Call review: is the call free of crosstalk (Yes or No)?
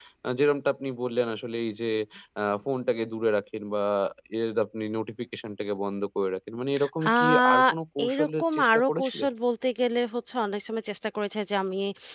No